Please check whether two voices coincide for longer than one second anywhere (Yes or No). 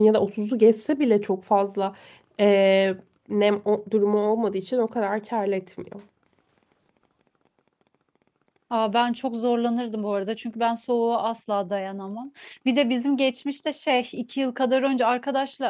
No